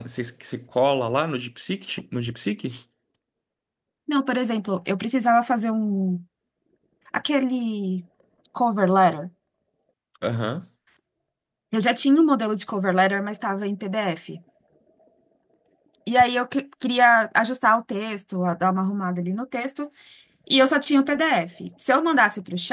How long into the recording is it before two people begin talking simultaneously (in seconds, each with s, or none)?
none